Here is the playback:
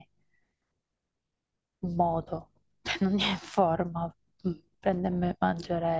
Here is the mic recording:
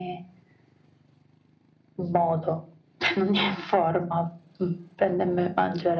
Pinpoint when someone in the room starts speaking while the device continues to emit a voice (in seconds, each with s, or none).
none